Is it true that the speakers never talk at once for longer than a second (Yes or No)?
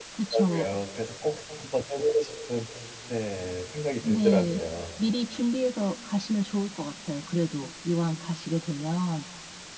Yes